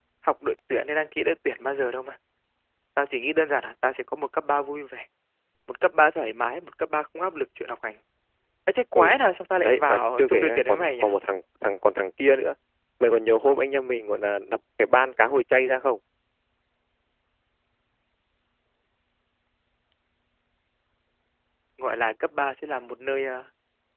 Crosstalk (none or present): present